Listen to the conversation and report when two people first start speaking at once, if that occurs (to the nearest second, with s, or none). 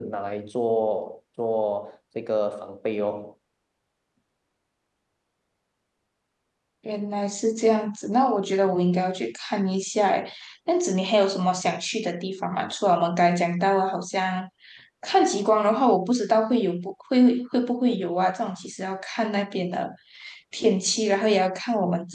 none